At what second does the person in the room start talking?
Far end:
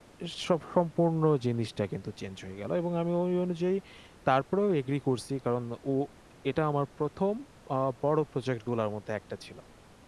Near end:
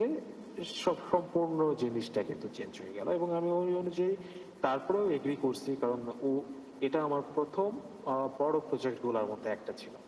none

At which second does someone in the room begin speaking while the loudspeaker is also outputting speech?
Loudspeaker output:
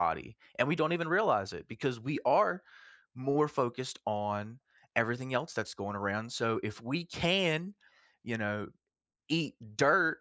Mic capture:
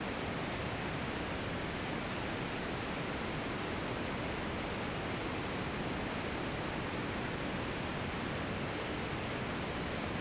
none

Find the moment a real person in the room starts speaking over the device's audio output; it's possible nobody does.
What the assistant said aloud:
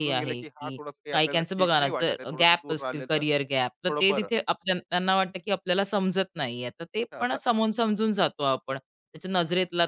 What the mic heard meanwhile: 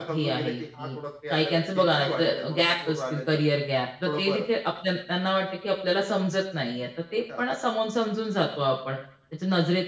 none

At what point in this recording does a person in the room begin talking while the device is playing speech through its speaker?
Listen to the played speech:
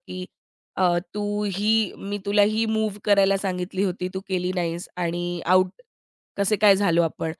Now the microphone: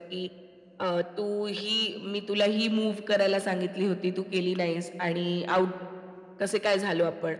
none

